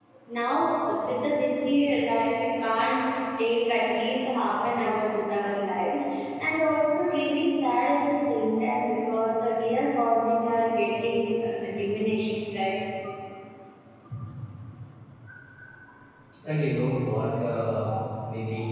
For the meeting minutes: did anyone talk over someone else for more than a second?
No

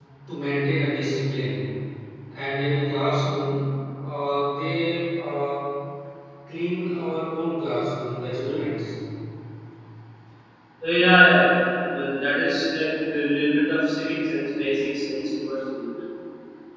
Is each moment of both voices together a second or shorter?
Yes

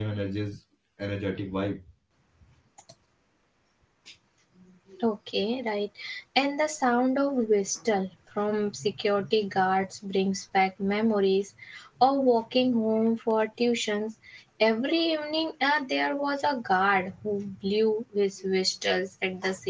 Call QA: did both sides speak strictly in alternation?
Yes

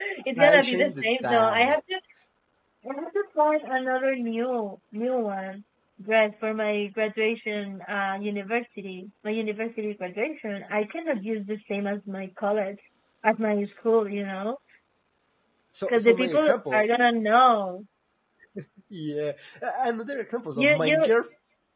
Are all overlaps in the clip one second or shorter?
No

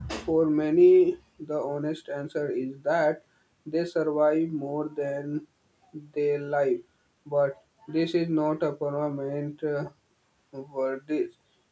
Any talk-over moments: No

